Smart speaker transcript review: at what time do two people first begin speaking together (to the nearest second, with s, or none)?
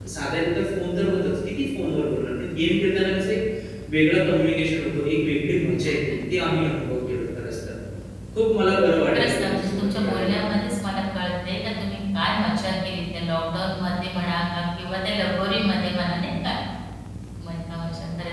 9 s